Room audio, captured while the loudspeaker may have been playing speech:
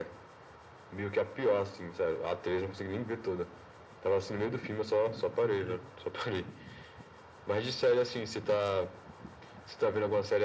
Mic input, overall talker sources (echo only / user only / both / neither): both